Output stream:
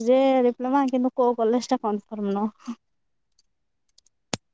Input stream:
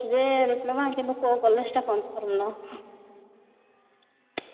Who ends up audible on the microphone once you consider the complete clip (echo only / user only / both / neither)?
echo only